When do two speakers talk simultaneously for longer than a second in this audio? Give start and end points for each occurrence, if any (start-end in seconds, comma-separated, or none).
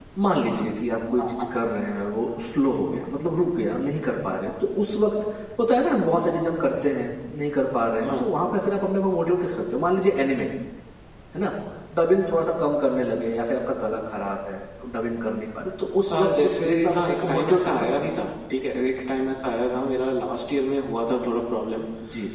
16.1-17.9